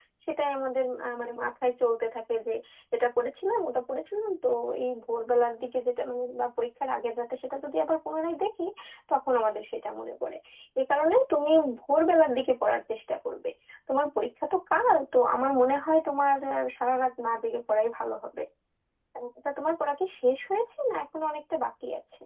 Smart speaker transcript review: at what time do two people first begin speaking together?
none

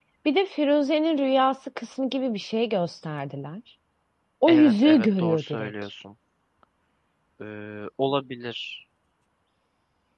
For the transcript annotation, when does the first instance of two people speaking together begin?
4.5 s

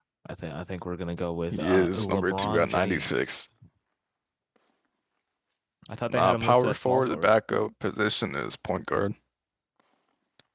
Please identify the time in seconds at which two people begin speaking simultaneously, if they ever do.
1.5 s

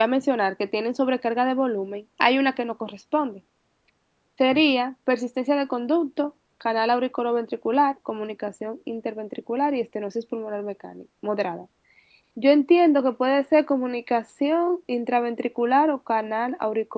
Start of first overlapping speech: none

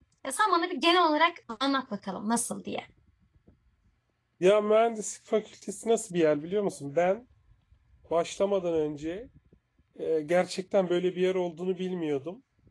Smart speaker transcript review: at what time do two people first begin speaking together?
none

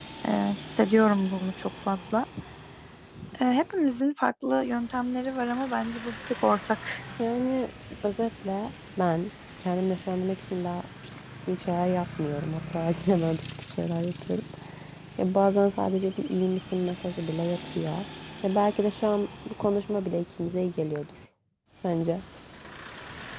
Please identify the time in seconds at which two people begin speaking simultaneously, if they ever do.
none

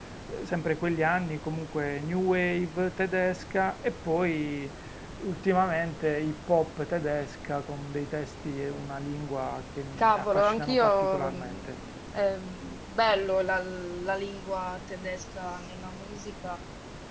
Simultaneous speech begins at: 10.0 s

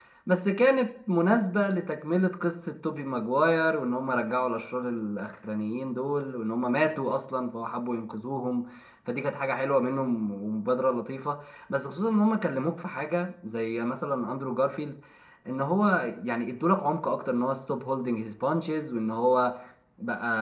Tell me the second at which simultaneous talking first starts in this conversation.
none

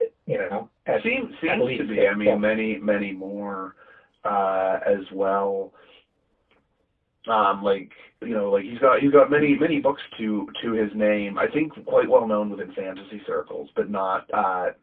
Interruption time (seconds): 0.9 s

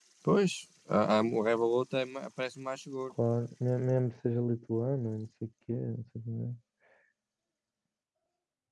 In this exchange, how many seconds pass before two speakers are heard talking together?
none

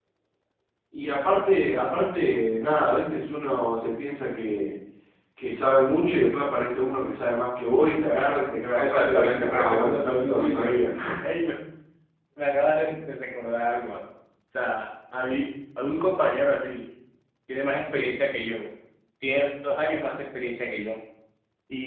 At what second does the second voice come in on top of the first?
8.8 s

